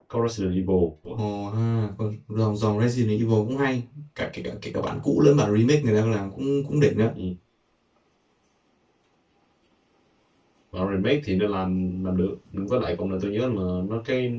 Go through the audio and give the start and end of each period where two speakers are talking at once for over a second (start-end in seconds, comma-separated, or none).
none